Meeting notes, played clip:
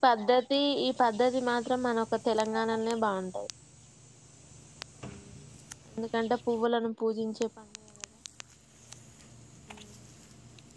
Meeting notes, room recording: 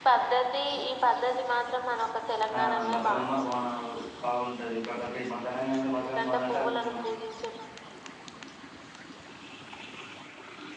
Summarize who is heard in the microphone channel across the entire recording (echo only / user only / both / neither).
both